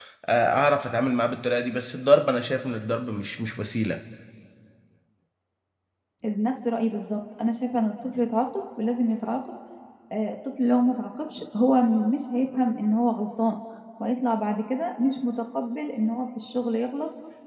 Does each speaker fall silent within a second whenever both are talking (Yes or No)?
Yes